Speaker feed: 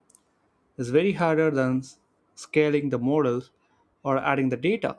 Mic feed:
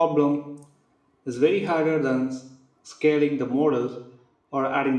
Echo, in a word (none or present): present